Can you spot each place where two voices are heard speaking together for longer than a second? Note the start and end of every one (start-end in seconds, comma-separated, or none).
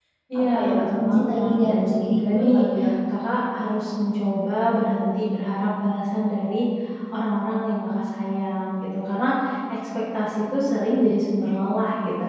0.5-2.6